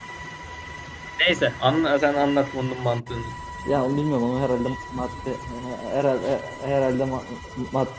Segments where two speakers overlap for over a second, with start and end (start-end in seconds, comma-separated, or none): none